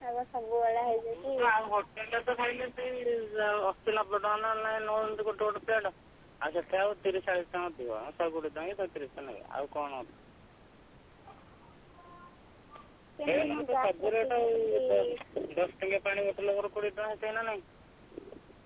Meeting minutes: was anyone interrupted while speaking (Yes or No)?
Yes